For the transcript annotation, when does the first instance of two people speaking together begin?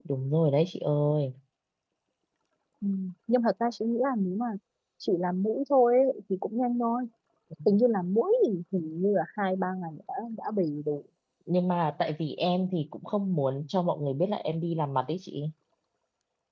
none

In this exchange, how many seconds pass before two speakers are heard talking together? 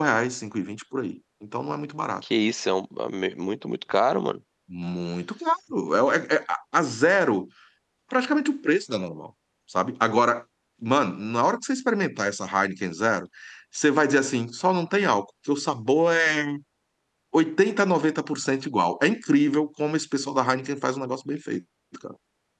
none

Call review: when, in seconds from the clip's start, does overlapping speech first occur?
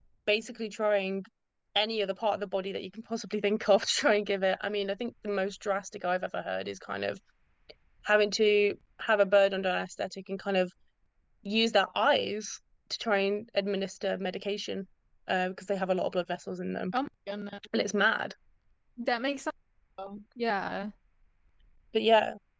none

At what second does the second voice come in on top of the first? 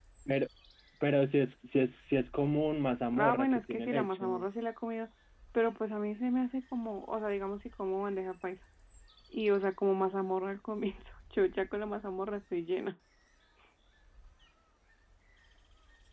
3.1 s

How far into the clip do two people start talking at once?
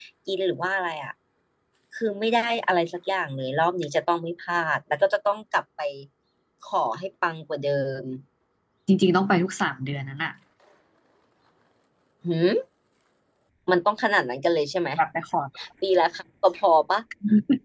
none

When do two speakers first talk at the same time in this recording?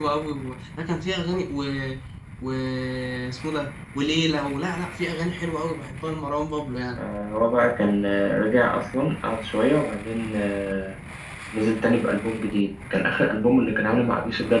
none

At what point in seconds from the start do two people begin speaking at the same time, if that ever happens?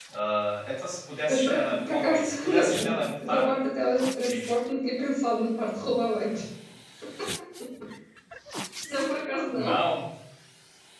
1.3 s

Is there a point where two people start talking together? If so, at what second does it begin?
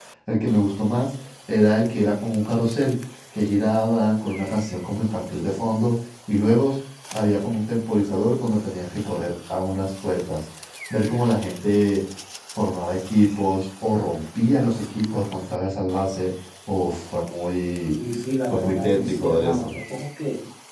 18.5 s

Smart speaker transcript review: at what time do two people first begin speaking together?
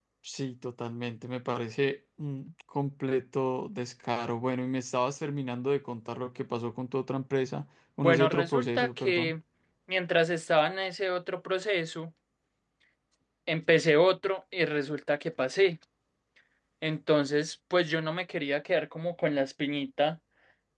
8.0 s

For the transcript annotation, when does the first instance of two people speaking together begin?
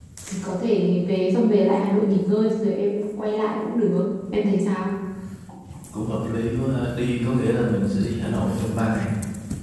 none

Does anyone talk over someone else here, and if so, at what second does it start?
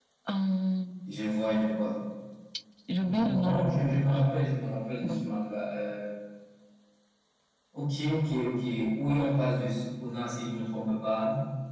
2.9 s

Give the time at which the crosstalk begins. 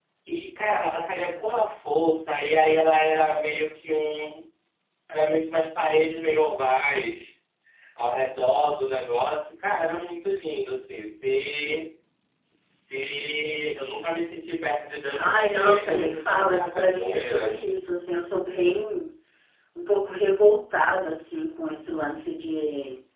15.1 s

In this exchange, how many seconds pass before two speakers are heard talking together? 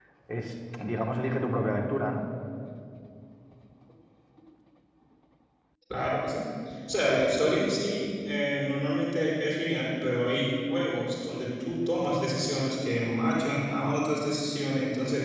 none

